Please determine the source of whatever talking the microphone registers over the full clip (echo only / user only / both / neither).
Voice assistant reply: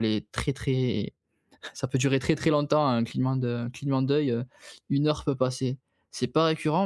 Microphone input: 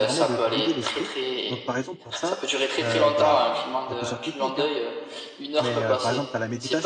both